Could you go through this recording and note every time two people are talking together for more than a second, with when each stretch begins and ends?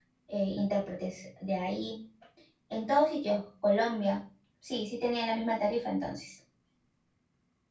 none

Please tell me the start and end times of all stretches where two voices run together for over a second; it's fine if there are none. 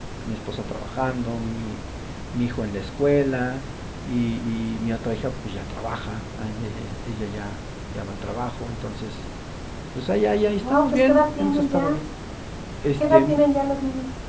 10.6-12.0

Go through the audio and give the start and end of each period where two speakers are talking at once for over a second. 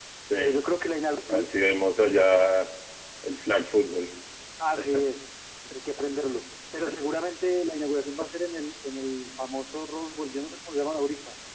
none

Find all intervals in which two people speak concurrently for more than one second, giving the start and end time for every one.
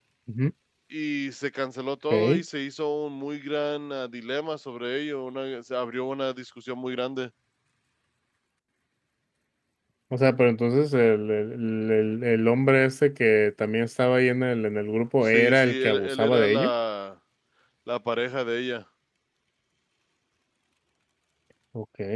15.2-16.7

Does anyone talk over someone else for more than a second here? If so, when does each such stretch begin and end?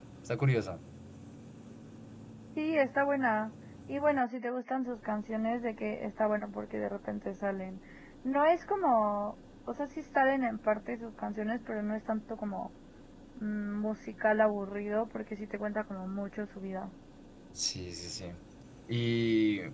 none

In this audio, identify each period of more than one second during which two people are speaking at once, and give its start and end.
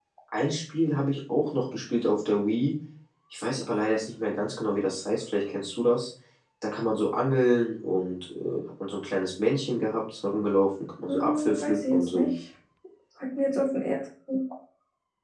11.1-12.3

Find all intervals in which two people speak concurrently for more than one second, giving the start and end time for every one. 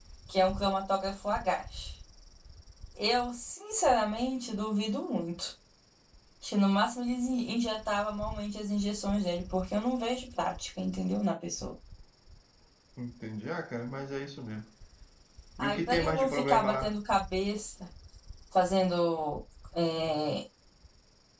15.6-17.0

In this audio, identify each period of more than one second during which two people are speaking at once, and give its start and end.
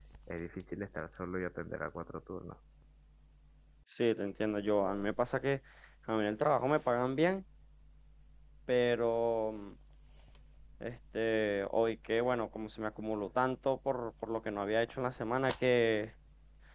none

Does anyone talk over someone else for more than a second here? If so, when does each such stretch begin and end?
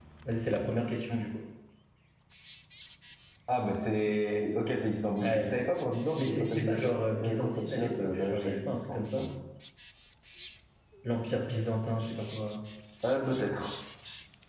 6.2-9.3

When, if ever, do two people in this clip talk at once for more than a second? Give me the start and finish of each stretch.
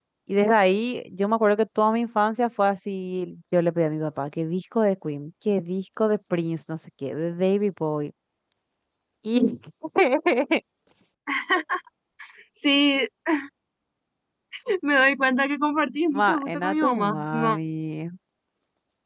16.2-17.6

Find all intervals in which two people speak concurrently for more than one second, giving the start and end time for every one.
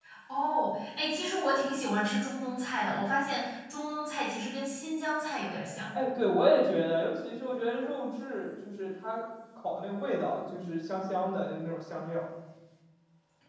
none

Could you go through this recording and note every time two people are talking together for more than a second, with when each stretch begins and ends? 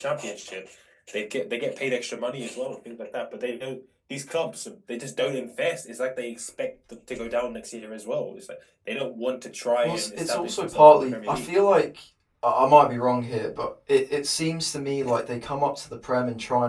9.8-11.5

